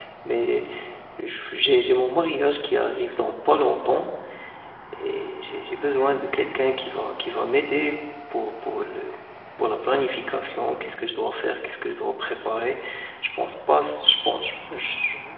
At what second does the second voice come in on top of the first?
none

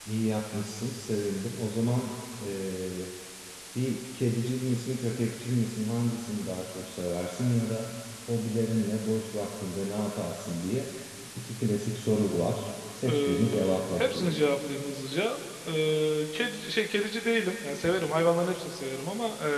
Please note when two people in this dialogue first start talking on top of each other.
13.1 s

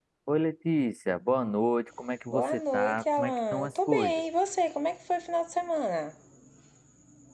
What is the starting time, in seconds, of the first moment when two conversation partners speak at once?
2.3 s

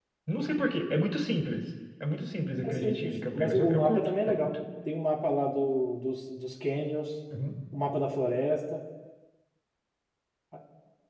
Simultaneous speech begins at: 2.6 s

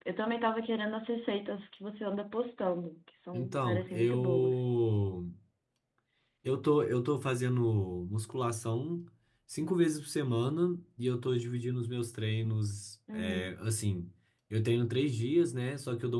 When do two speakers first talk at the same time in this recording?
3.3 s

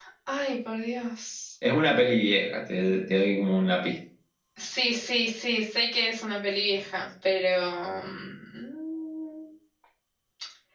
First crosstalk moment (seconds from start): none

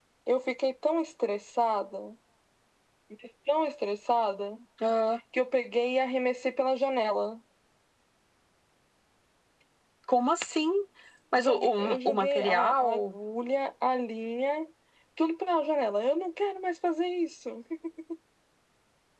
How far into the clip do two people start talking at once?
11.4 s

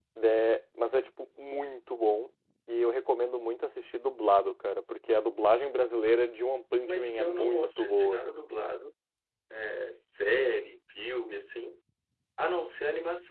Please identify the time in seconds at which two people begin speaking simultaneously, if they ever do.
6.8 s

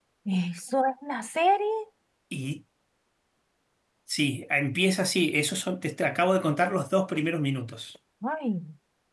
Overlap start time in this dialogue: none

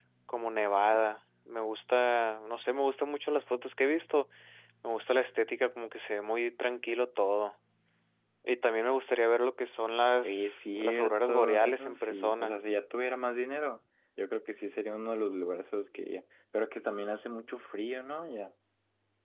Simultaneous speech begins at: 10.2 s

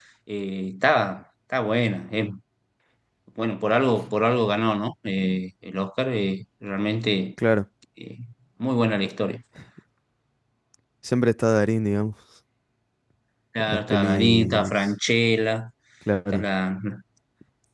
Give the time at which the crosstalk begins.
13.7 s

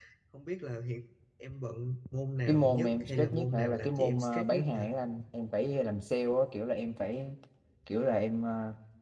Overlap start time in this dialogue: 2.5 s

